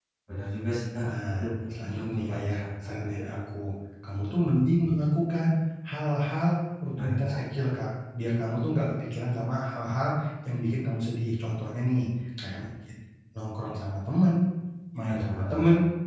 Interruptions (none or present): present